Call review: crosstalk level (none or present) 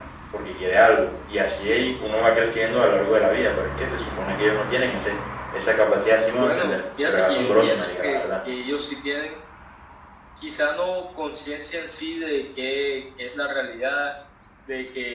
present